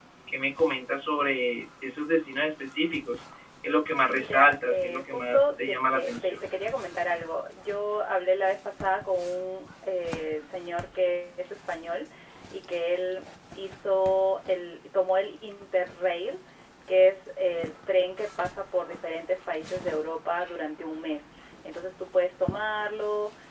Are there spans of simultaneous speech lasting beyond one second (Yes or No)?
Yes